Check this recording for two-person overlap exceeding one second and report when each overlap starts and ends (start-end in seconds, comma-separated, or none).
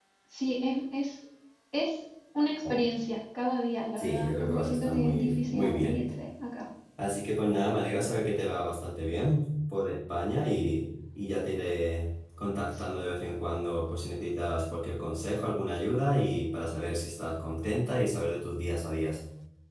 4.0-6.0